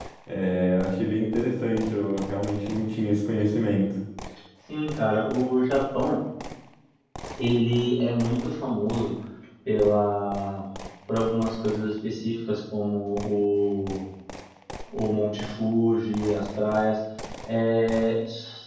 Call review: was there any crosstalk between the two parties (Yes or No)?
No